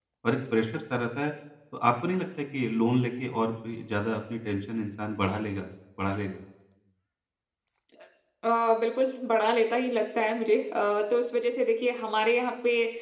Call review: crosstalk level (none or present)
none